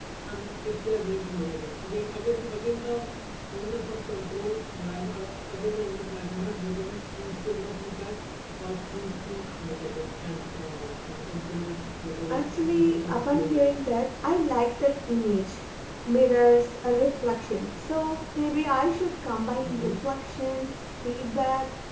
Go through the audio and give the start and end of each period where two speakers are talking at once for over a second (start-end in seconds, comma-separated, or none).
12.3-13.7